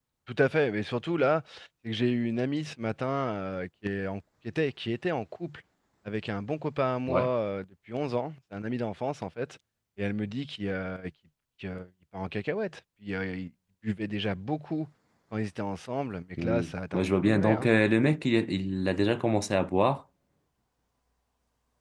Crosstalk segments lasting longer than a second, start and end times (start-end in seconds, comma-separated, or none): 16.4-17.7